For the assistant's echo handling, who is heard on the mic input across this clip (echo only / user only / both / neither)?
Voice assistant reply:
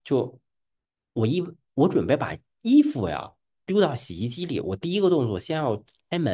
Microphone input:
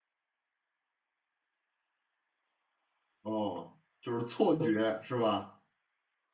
user only